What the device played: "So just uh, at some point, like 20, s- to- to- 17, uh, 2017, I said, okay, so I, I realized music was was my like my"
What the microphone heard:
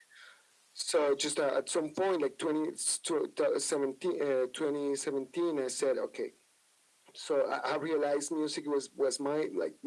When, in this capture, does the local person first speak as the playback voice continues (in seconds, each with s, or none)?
none